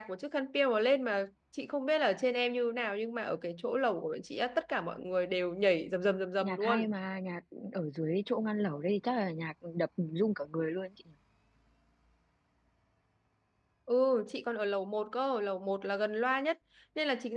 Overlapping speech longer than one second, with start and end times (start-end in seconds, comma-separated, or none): none